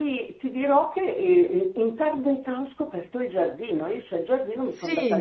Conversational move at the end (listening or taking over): listening